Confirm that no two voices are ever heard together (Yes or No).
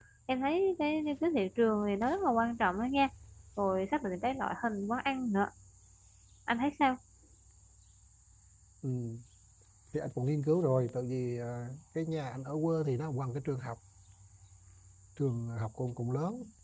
Yes